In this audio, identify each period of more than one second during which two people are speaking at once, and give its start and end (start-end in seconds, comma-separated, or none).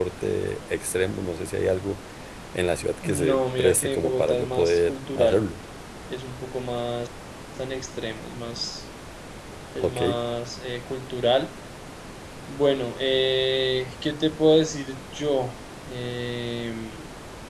3.0-5.4